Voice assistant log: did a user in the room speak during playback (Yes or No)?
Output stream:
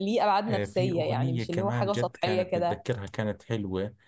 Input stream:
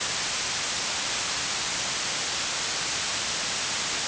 No